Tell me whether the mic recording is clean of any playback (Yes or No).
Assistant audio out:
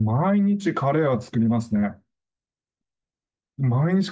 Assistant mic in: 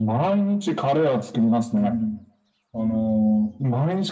No